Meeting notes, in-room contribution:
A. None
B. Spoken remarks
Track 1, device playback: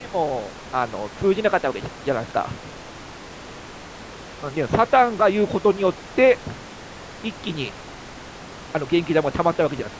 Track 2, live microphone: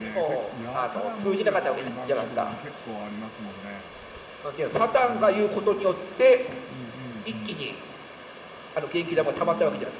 B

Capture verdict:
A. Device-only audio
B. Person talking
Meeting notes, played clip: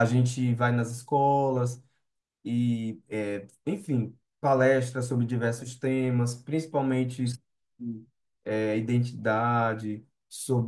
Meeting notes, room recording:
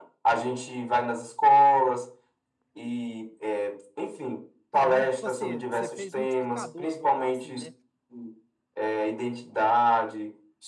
B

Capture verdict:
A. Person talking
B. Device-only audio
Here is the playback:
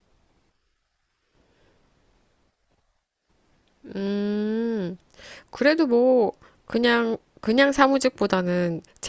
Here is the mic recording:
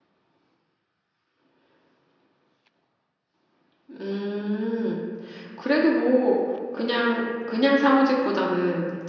B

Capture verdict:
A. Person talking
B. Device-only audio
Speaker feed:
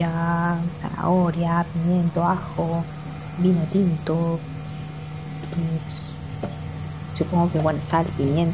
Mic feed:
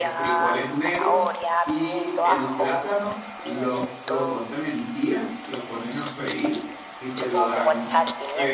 A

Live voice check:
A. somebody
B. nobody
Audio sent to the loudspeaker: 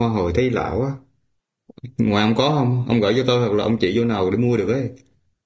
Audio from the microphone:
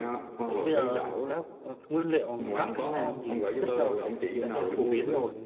A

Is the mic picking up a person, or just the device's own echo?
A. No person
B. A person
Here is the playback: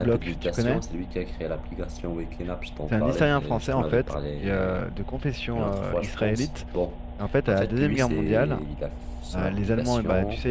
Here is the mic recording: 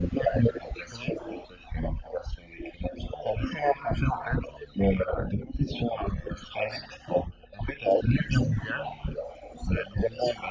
A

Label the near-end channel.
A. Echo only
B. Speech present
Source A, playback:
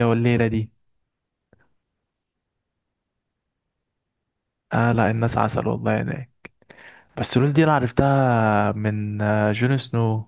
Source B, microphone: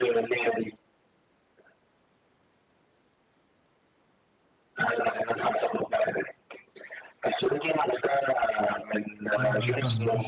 B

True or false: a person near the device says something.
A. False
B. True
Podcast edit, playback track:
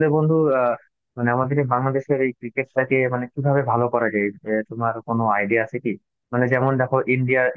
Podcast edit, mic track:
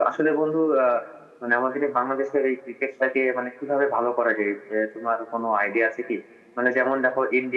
A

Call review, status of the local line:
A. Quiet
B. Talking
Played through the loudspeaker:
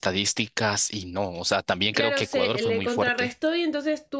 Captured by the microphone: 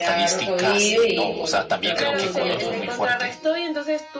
B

